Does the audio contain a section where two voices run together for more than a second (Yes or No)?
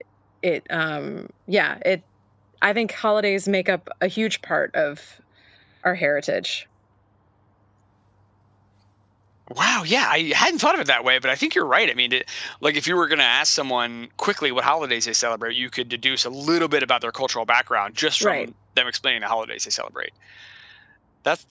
No